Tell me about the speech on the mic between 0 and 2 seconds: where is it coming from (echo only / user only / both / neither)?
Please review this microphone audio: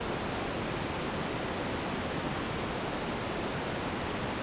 neither